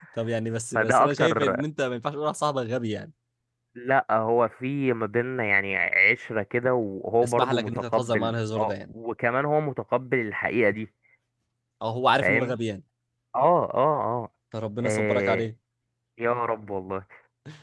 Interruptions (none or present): present